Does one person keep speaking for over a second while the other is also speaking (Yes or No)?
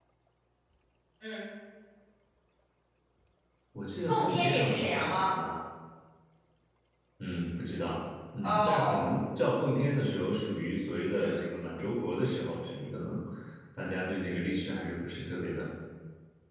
Yes